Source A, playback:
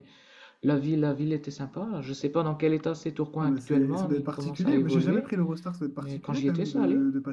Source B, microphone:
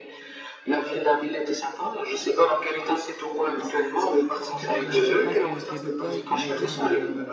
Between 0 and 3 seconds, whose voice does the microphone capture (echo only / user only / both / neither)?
echo only